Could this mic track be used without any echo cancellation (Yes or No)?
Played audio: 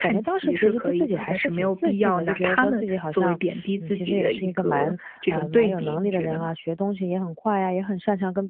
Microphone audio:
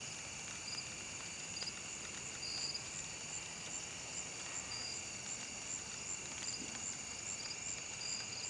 Yes